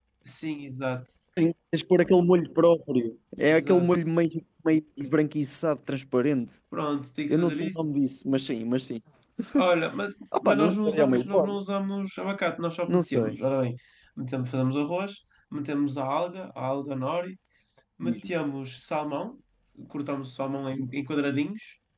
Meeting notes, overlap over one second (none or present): present